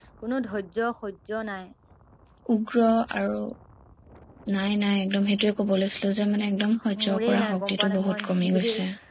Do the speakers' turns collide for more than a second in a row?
Yes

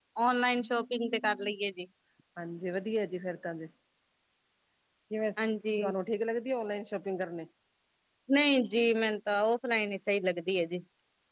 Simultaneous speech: No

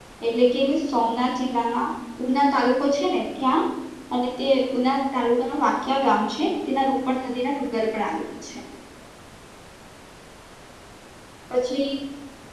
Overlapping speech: No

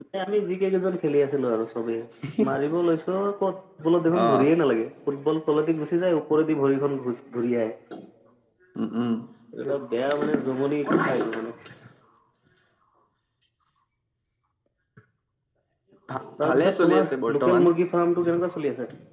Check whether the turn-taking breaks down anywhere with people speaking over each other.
Yes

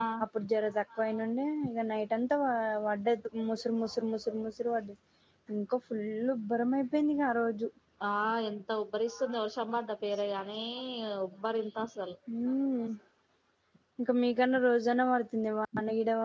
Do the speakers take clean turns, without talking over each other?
Yes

